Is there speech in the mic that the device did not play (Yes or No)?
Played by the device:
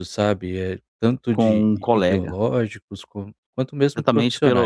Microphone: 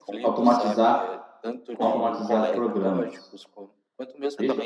Yes